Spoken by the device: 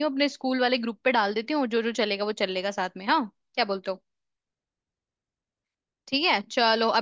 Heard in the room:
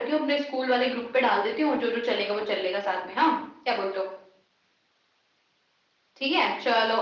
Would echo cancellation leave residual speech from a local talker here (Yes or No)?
No